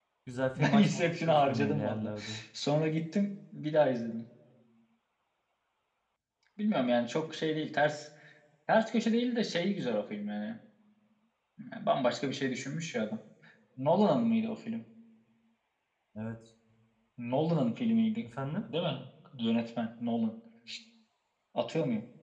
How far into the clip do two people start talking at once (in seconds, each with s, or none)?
0.6 s